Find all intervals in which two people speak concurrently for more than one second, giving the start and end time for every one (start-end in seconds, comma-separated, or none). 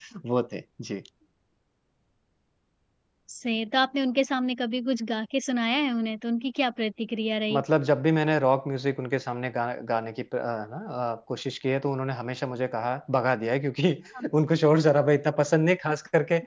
none